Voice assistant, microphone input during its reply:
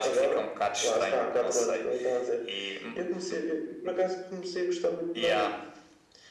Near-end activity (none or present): none